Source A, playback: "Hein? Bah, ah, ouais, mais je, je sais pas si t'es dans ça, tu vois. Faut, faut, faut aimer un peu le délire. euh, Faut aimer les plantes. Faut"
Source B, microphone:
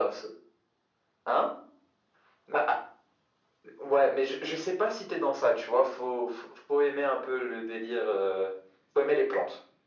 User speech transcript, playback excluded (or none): none